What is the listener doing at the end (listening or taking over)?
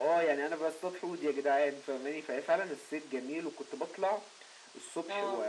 listening